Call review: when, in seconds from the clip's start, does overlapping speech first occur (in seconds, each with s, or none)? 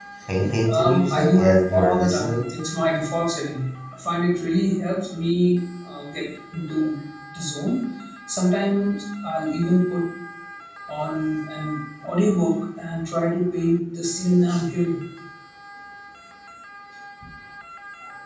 0.7 s